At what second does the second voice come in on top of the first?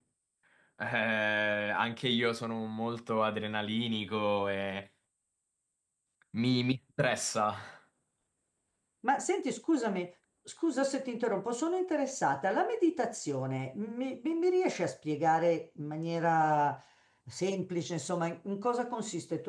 none

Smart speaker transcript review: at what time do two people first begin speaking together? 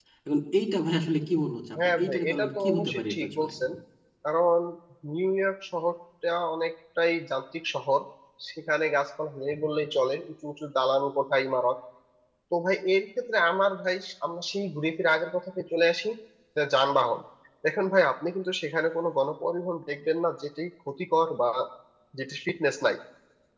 1.7 s

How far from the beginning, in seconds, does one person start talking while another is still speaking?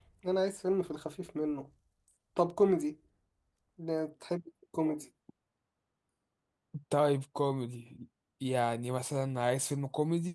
none

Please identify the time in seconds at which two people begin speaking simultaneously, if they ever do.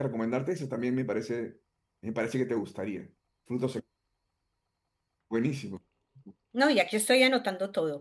none

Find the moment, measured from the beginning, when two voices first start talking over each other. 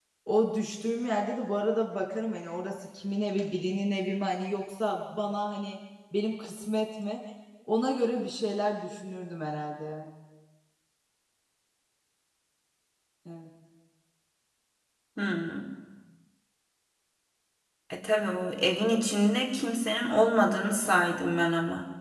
none

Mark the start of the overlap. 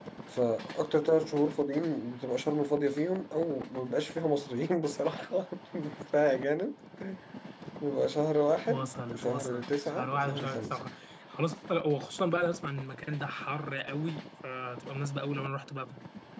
8.7 s

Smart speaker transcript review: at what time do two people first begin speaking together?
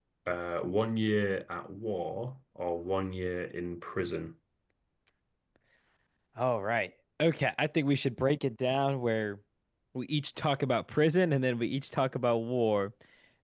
none

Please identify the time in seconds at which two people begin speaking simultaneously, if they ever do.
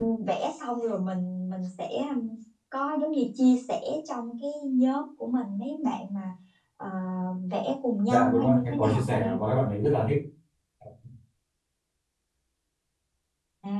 8.1 s

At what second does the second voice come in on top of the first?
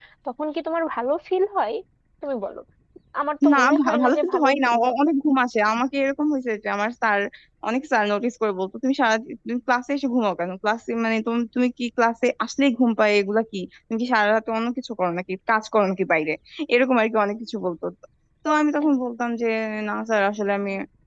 3.5 s

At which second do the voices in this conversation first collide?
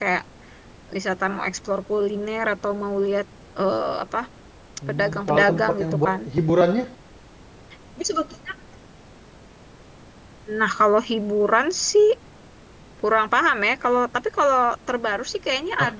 4.9 s

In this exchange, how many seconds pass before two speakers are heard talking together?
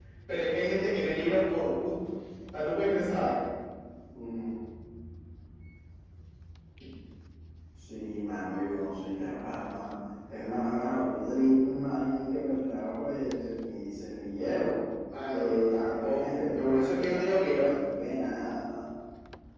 15.3 s

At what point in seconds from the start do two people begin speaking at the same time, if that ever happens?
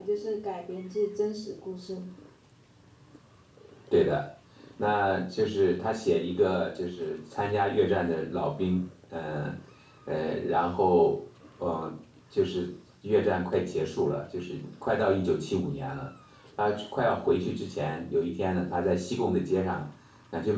none

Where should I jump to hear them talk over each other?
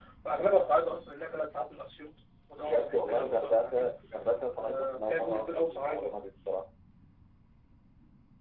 2.6 s

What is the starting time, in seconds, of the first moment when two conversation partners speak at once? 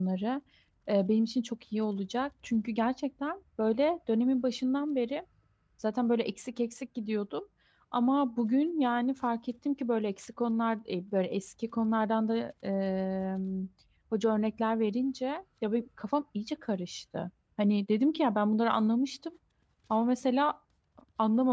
none

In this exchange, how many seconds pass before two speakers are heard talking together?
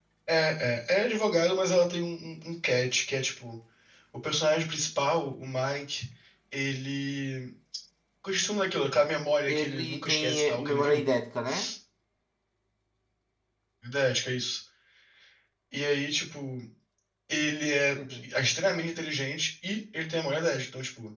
9.5 s

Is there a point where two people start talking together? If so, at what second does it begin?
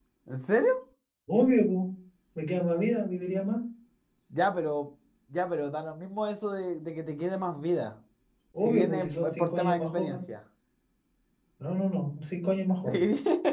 8.6 s

